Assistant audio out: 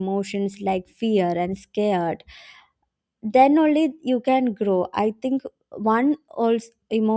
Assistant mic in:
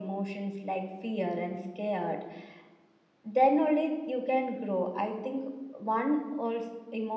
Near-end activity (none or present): none